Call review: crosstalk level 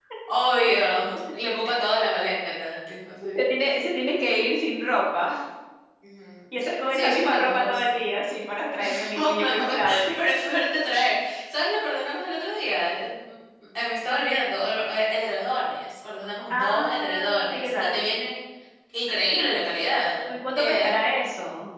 present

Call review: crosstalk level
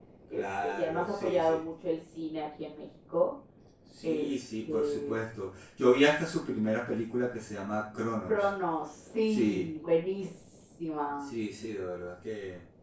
present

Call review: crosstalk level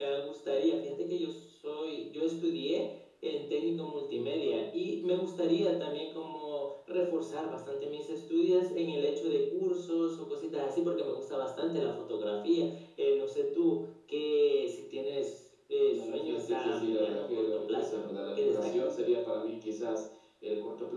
present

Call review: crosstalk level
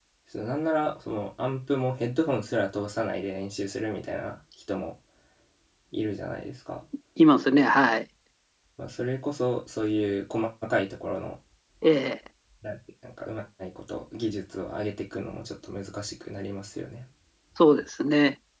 none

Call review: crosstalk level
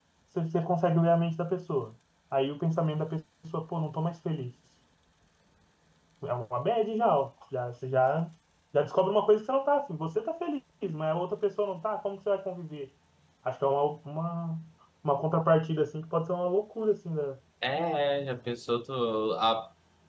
none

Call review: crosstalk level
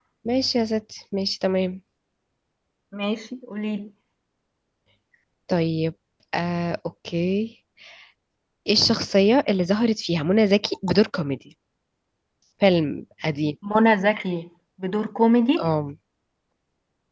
none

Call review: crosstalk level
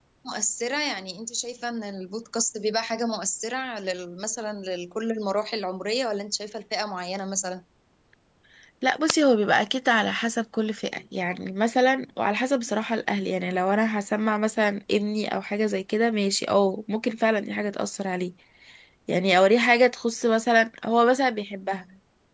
none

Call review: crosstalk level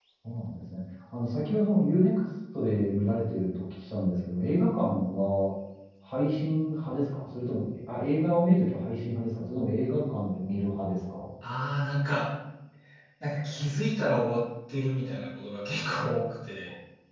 none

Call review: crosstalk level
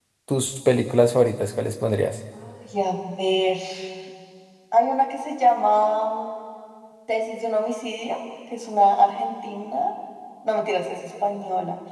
none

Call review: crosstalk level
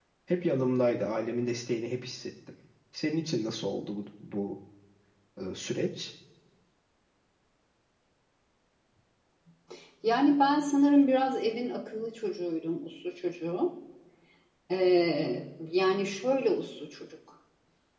none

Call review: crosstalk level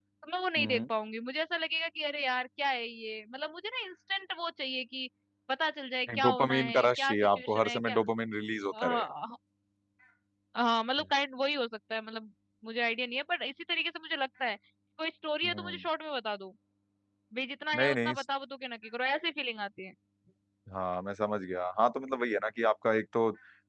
present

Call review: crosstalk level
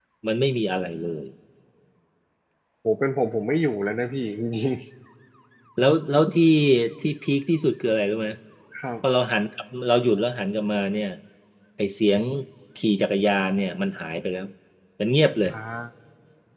none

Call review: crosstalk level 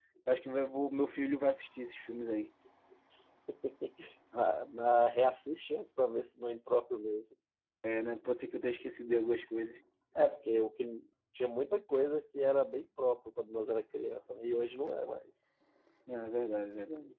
none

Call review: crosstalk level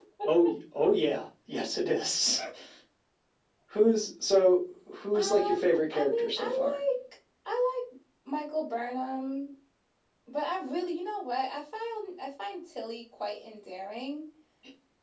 present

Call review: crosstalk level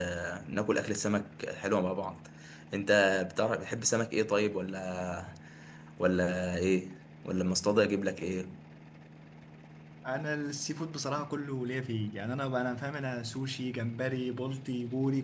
none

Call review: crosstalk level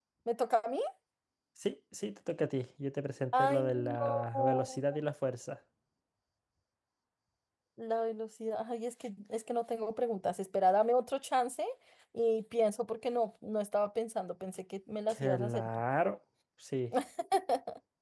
present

